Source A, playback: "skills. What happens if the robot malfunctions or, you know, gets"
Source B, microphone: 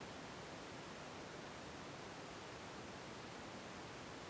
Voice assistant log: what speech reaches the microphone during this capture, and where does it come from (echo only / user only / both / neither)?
neither